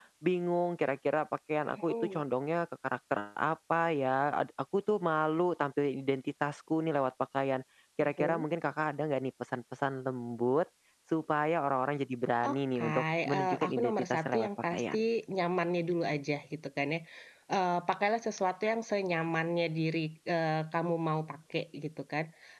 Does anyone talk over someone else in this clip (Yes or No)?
Yes